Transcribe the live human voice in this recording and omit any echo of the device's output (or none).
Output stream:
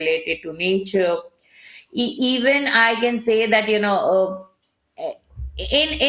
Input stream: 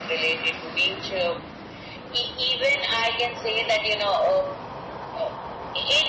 none